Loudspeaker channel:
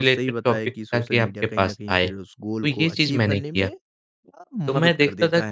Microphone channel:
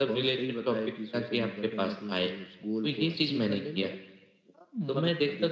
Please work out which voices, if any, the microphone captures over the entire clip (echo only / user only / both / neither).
echo only